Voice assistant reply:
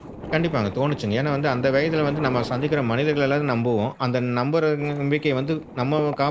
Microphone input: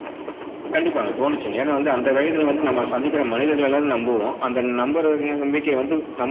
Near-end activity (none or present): none